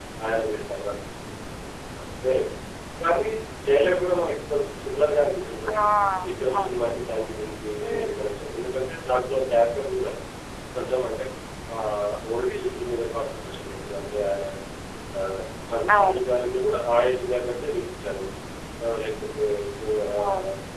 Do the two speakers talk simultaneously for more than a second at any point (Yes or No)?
No